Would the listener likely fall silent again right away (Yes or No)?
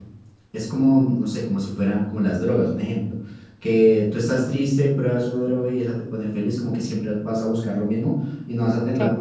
Yes